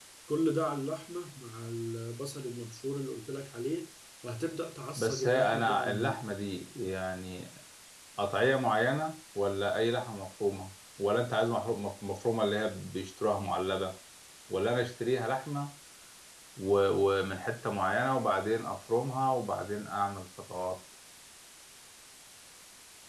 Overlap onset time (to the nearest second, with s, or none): 5 s